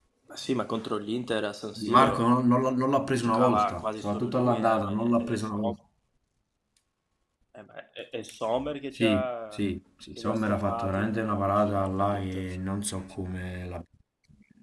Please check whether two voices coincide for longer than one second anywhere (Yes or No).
Yes